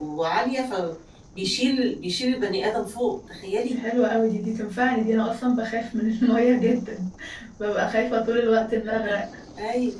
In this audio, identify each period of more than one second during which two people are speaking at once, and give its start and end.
none

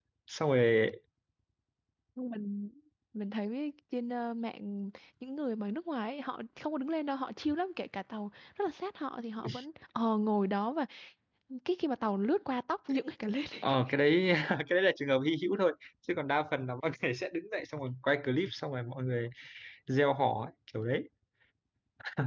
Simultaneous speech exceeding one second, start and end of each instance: none

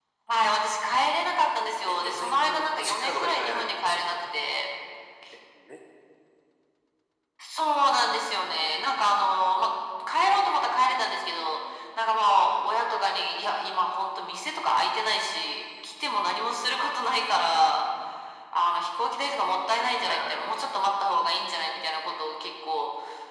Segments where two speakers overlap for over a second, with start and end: 1.9-4.2

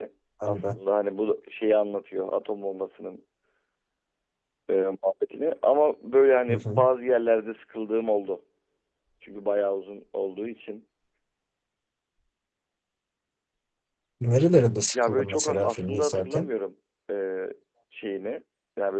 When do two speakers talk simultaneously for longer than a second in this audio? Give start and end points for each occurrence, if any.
14.9-16.5

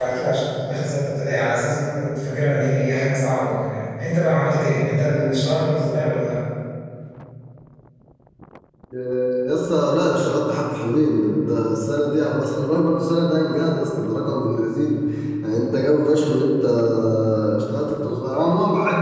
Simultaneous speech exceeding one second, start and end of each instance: none

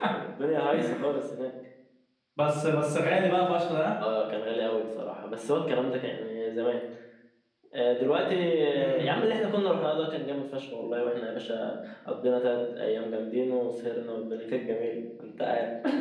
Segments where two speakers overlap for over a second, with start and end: none

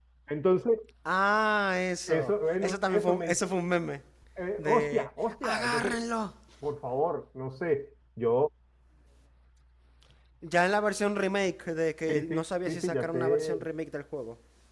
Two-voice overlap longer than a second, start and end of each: 2.1-3.5, 4.6-6.0, 12.1-13.6

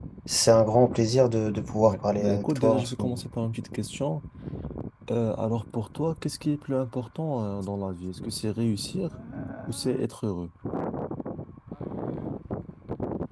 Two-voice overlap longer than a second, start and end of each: 1.8-3.2

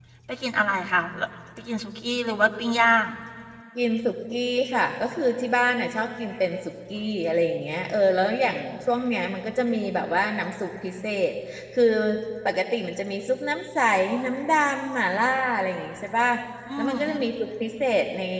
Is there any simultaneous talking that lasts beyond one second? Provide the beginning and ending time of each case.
none

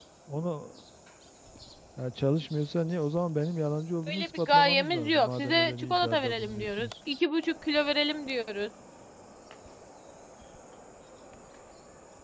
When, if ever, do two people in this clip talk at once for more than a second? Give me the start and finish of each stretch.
4.1-6.9

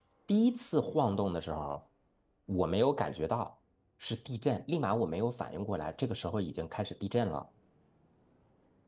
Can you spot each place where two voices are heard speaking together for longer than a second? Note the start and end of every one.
none

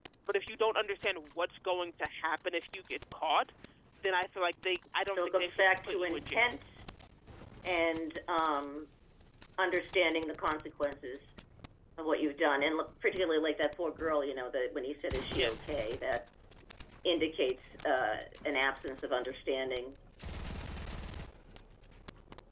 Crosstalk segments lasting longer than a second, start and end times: 5.1-6.5

